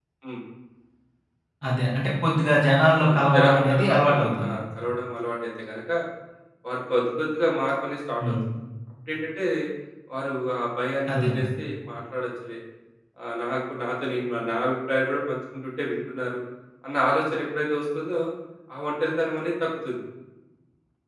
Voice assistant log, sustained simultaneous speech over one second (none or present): present